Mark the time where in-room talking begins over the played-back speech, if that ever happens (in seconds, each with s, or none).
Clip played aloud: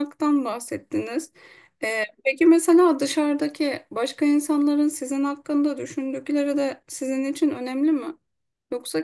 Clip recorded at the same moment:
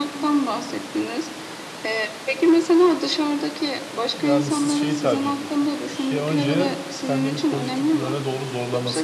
4.2 s